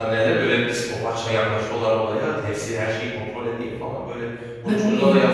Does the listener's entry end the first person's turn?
No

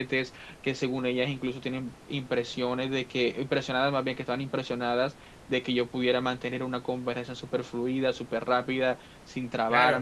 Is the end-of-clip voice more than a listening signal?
Yes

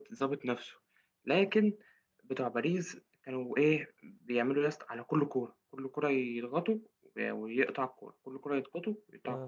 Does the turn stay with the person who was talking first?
Yes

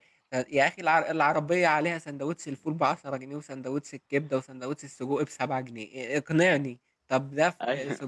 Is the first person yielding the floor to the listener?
No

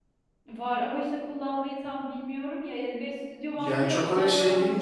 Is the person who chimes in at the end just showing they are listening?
No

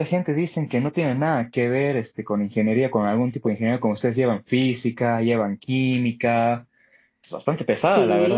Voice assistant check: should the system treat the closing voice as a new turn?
Yes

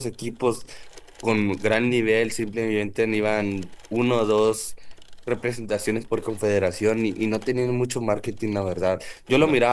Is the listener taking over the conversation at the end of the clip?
No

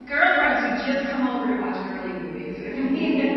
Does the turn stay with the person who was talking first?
No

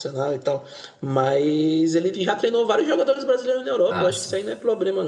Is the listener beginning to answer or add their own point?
No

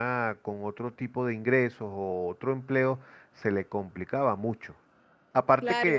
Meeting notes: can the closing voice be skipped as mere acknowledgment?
No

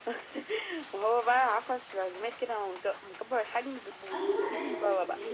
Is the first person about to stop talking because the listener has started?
Yes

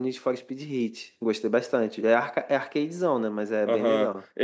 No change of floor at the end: No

